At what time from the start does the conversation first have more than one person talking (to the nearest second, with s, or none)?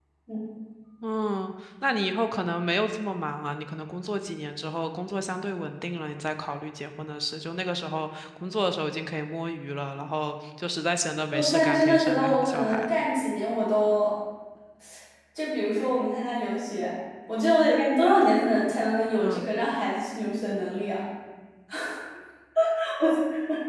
11 s